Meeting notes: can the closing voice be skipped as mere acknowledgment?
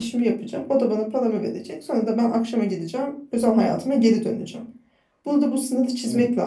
Yes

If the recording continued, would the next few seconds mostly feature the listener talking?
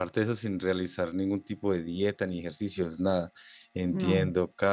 No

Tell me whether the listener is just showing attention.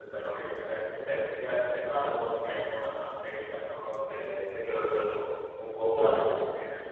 Yes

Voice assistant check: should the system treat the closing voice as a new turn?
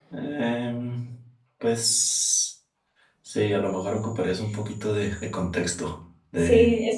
Yes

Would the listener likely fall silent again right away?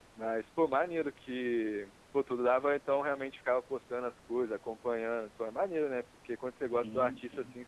Yes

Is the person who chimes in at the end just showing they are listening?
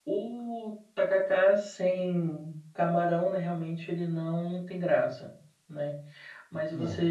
Yes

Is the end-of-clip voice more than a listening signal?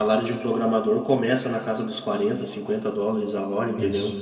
No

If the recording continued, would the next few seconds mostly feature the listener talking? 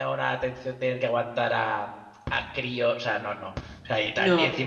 No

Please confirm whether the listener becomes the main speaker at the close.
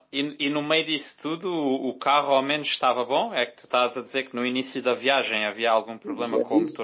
Yes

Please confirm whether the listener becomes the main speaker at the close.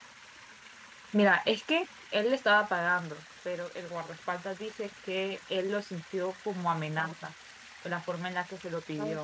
Yes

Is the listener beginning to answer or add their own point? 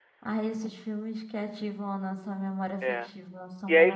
Yes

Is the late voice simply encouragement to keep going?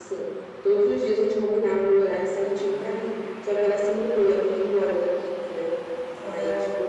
Yes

